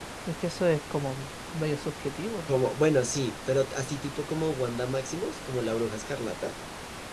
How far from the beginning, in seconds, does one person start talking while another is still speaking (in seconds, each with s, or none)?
none